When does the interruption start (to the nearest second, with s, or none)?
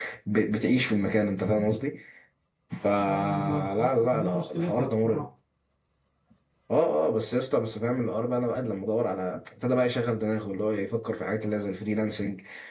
3 s